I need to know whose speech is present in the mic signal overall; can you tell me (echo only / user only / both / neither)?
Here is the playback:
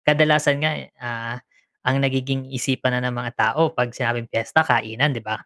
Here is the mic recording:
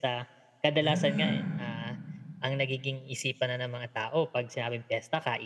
both